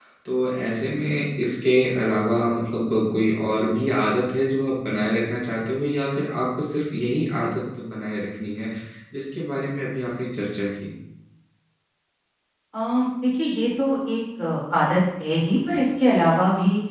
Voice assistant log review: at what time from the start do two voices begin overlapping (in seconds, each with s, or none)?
none